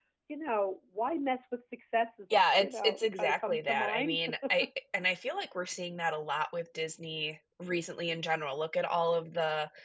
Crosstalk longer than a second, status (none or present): present